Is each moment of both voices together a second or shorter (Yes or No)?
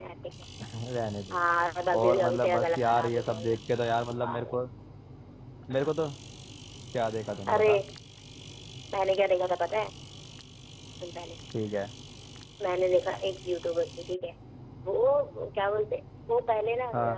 No